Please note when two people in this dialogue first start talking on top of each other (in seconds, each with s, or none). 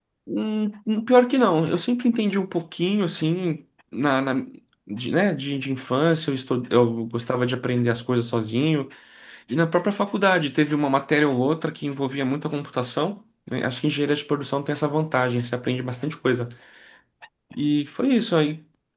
none